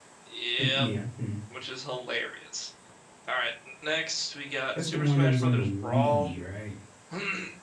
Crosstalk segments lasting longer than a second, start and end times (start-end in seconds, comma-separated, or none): 4.8-6.3